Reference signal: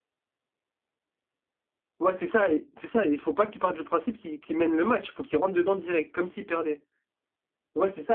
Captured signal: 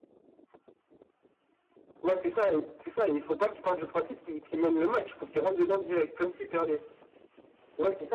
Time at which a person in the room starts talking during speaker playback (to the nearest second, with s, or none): none